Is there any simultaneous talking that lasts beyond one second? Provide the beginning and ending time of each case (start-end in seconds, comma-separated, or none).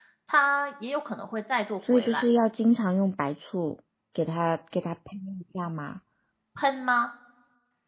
none